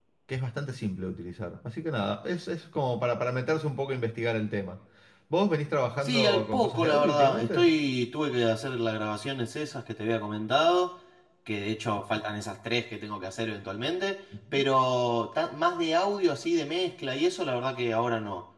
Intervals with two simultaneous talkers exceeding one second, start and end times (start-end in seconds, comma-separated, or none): 6.0-7.7